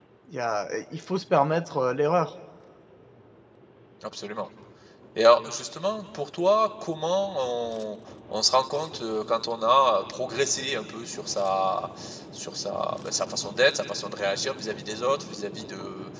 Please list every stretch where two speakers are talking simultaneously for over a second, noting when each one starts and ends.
none

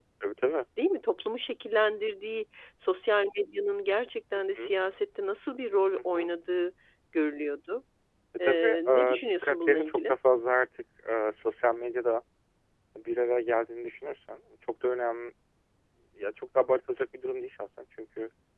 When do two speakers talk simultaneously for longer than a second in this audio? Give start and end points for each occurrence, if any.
8.5-10.1

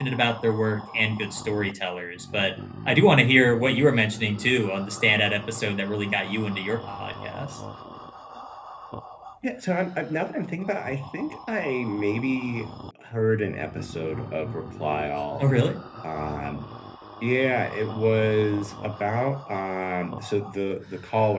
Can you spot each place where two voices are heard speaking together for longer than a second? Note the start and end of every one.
none

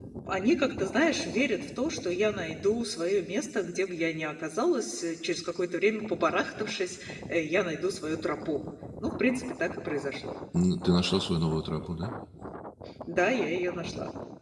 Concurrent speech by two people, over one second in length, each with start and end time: none

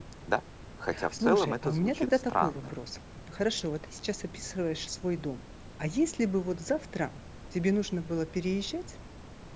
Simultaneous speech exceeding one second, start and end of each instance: 1.1-2.7

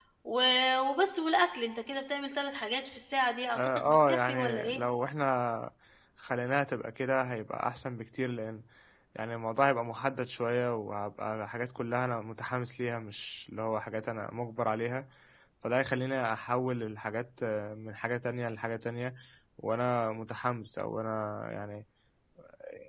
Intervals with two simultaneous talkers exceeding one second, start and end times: 3.5-4.8

